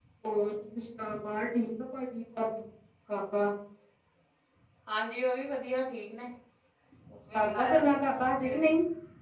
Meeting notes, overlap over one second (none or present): present